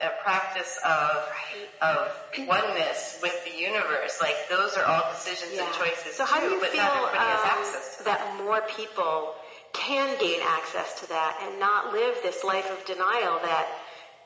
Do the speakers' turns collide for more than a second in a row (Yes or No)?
Yes